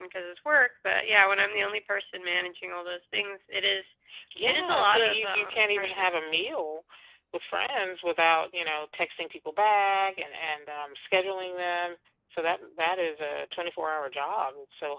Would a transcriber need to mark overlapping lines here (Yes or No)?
Yes